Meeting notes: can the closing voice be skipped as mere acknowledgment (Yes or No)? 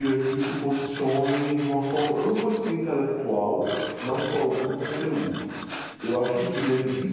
Yes